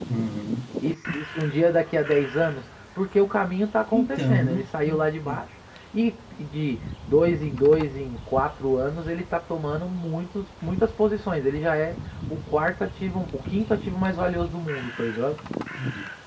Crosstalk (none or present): present